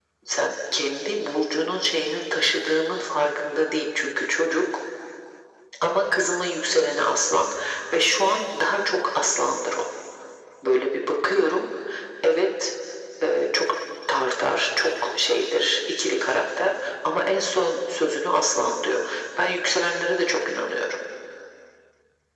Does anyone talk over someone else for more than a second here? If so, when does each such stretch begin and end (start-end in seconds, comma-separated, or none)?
none